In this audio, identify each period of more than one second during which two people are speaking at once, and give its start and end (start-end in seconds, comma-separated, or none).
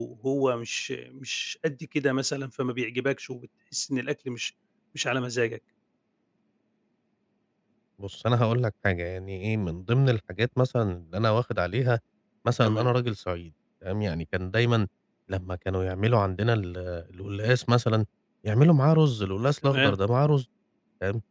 none